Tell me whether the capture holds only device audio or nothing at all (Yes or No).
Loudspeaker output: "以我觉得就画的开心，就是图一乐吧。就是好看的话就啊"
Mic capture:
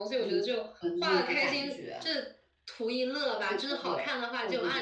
No